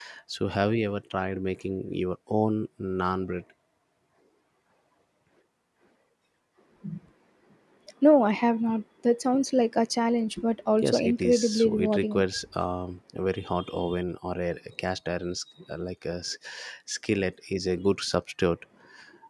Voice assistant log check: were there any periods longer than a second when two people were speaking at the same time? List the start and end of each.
10.8-12.2

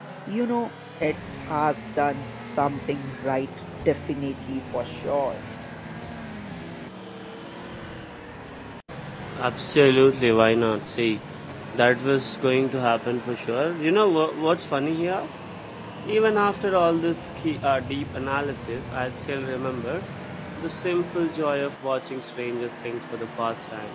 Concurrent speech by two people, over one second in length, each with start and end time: none

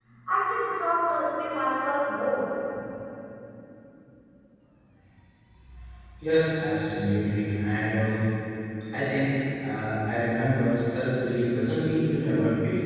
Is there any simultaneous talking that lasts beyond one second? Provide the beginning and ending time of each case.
none

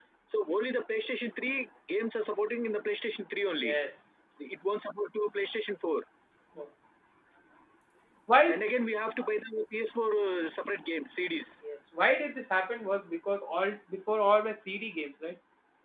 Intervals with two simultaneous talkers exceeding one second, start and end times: none

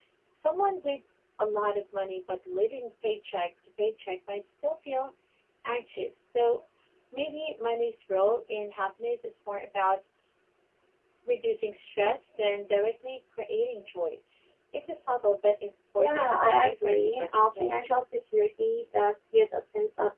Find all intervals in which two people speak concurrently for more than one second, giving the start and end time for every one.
16.0-17.7

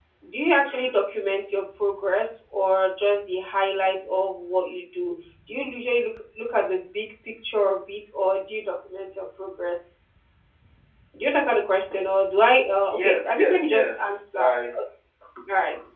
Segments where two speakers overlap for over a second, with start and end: 12.9-14.4

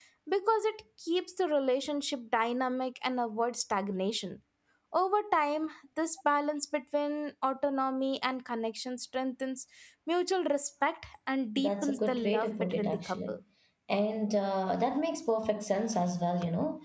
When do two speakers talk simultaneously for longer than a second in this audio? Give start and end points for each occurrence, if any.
11.6-13.4

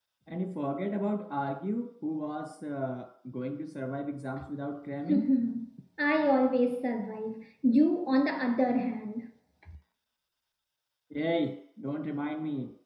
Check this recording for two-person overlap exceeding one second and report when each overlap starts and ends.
none

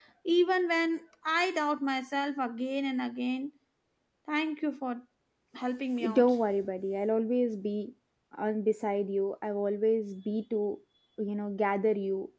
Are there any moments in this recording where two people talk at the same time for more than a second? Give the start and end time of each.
none

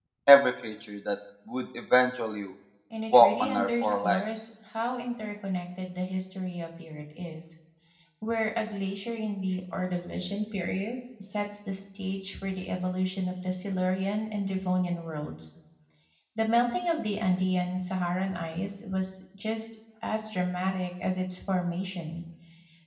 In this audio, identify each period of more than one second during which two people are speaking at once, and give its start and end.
3.1-4.4

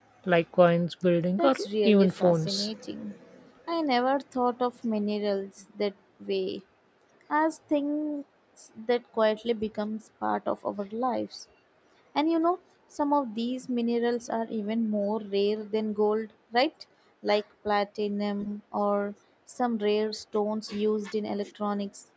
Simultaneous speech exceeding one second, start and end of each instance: 1.4-2.7

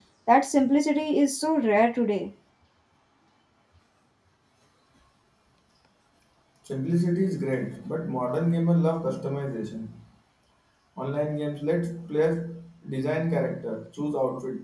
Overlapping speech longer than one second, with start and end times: none

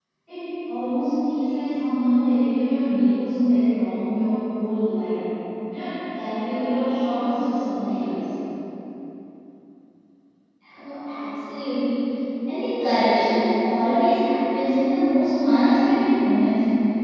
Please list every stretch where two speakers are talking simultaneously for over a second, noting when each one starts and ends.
none

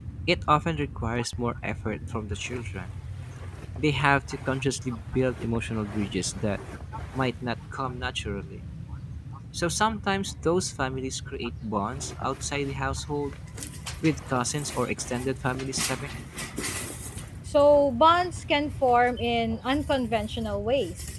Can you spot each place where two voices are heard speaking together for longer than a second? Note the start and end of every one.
none

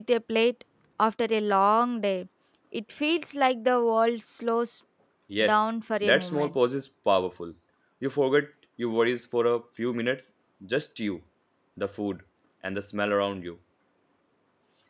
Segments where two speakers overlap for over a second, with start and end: none

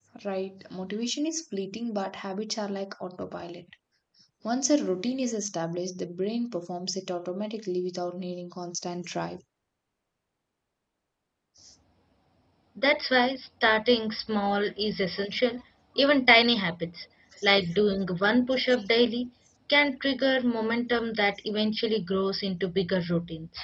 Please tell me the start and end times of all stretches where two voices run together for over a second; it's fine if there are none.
none

